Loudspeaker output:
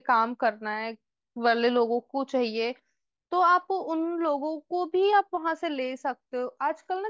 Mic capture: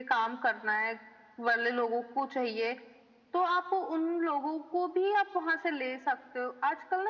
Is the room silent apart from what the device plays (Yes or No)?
Yes